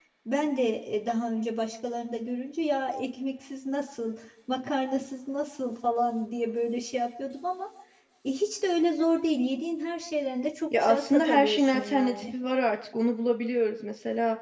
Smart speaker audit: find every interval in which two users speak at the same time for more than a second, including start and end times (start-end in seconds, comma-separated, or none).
10.8-12.2